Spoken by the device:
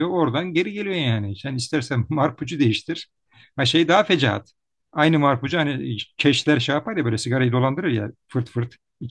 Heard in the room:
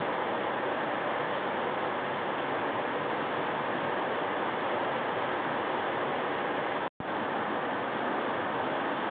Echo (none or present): none